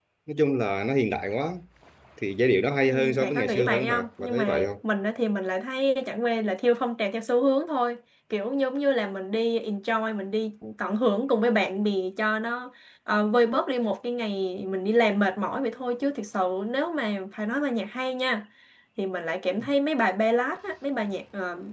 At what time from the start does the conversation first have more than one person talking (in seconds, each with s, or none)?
2.9 s